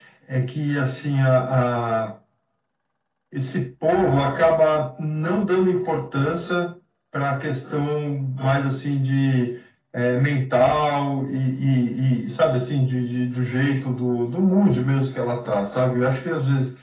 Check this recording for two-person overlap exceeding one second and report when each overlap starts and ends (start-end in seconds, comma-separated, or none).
none